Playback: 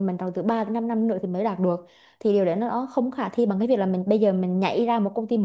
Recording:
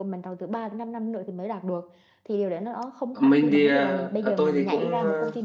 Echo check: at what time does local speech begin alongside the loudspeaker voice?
3.2 s

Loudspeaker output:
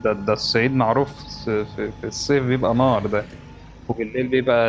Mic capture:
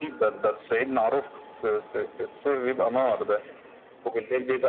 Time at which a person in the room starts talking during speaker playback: none

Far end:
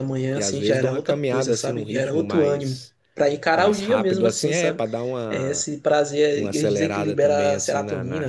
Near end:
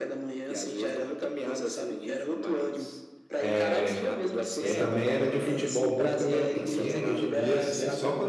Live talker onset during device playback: 3.4 s

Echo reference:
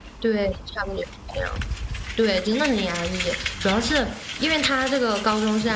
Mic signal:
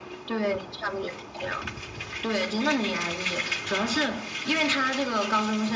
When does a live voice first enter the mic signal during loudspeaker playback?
none

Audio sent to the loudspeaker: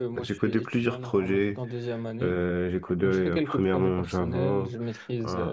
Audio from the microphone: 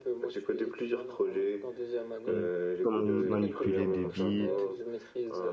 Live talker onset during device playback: 2.2 s

